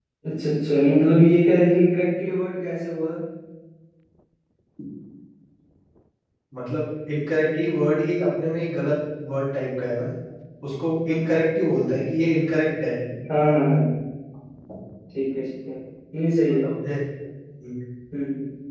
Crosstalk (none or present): none